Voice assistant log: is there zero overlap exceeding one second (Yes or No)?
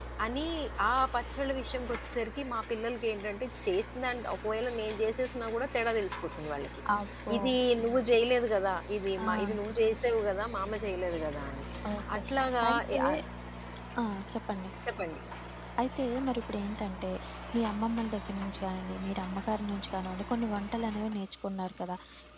Yes